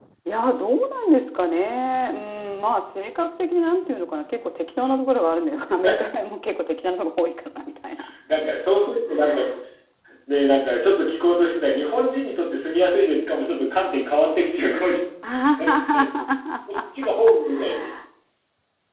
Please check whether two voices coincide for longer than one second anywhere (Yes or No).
No